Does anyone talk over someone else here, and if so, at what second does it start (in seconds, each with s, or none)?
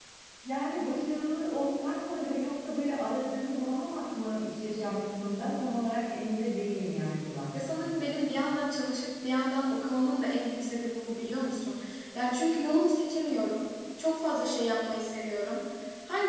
none